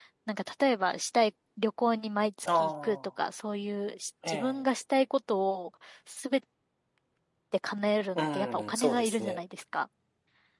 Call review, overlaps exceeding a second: present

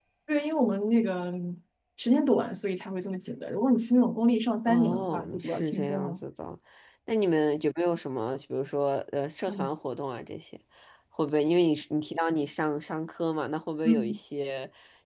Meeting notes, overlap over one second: present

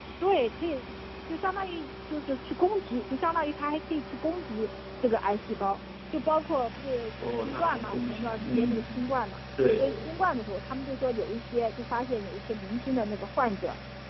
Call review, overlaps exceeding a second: present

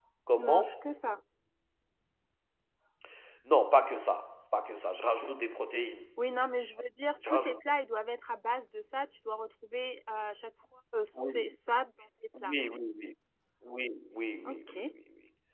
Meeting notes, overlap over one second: none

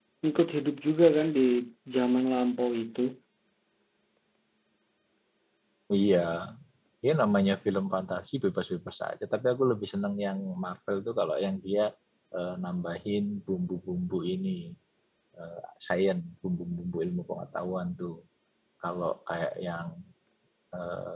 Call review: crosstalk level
none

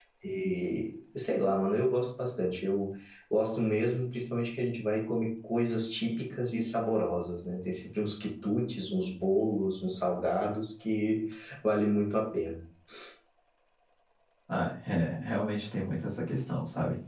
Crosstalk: none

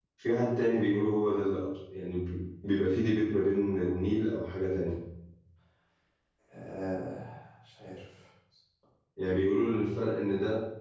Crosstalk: none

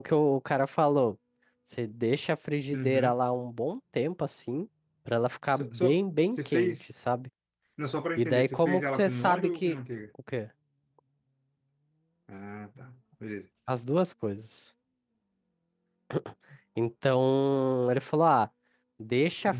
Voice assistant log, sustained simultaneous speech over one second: present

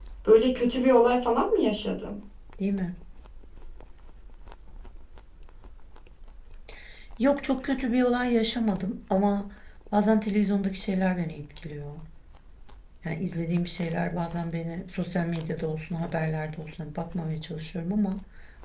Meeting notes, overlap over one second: none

